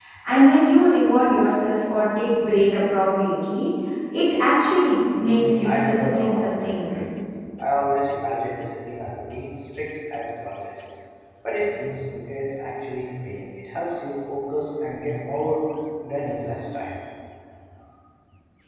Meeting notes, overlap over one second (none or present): present